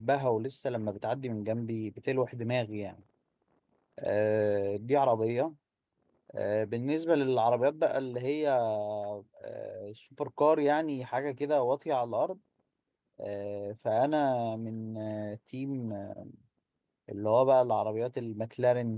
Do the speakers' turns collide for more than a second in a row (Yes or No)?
No